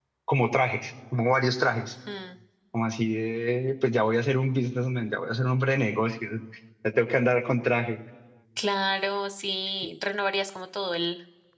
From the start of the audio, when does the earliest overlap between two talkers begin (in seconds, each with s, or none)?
none